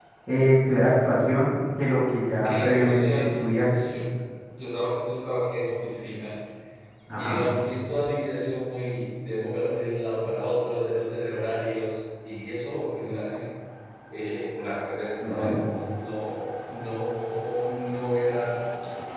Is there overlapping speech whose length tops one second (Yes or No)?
Yes